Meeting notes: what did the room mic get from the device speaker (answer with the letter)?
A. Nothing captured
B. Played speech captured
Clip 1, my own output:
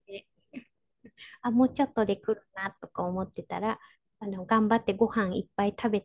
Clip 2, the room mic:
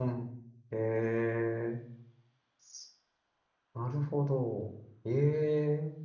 A